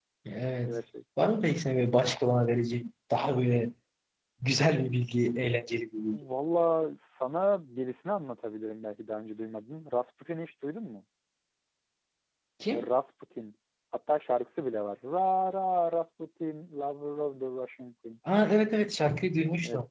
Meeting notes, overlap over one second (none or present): none